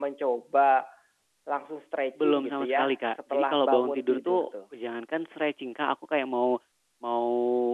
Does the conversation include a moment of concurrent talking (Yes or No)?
Yes